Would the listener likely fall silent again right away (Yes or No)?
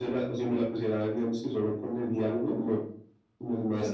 Yes